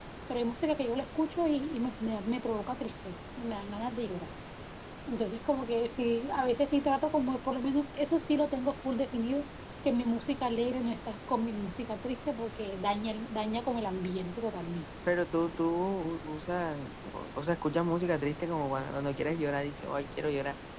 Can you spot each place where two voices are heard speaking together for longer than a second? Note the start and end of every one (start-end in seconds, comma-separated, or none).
none